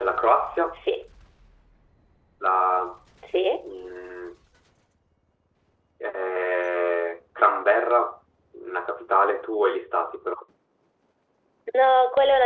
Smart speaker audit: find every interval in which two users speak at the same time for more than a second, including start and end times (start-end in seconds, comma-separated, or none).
none